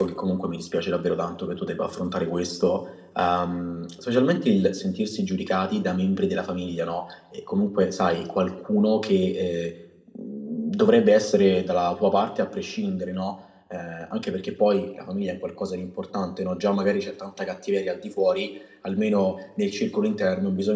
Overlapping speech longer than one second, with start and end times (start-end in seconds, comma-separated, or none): none